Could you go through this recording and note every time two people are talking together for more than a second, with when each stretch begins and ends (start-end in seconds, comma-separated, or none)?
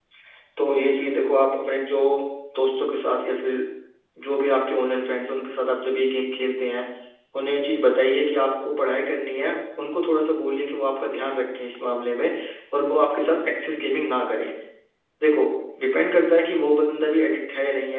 none